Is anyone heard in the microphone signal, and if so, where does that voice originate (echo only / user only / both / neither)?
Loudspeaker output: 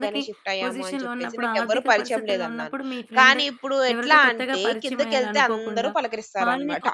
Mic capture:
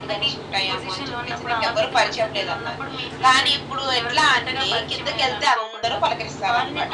echo only